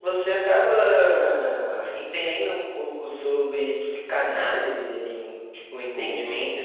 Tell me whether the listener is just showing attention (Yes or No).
Yes